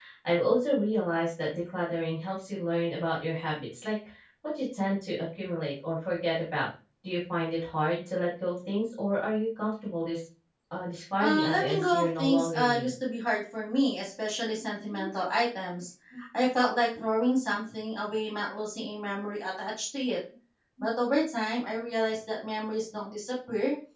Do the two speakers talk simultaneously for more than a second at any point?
Yes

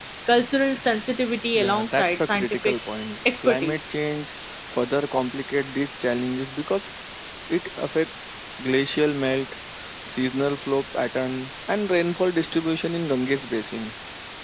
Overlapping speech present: Yes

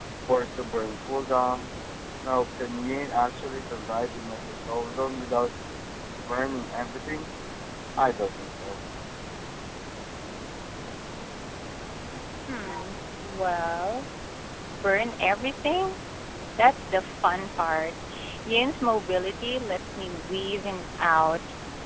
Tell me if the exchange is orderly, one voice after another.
Yes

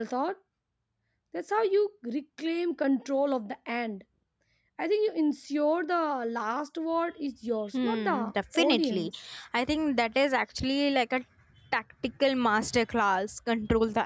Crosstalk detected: Yes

